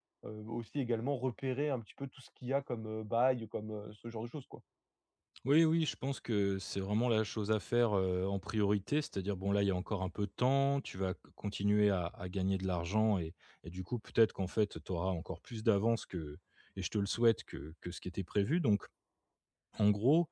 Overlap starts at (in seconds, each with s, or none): none